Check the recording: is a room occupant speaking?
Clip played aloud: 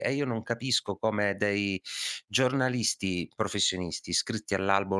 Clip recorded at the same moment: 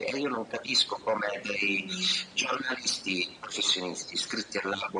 Yes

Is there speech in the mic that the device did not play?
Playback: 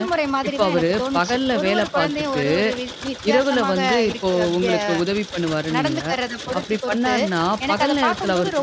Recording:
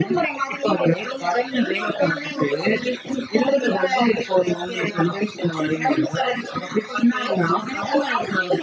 No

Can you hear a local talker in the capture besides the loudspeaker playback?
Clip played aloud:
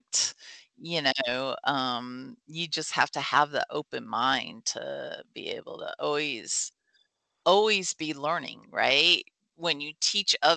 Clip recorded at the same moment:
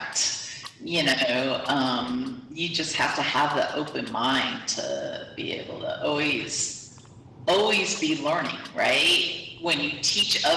No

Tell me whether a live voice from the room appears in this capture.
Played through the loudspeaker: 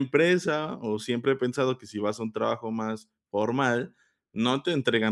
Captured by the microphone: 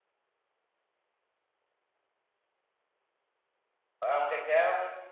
Yes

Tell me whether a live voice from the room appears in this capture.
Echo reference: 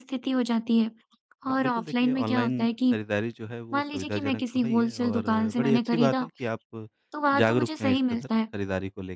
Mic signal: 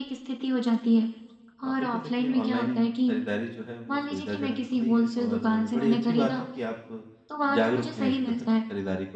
No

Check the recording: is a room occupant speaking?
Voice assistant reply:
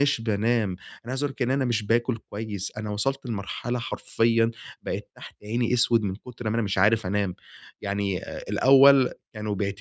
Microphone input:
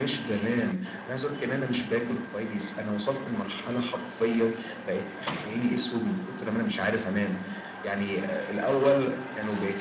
No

